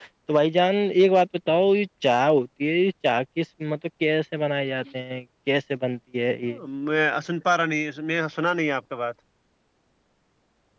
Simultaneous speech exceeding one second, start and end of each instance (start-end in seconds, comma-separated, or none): none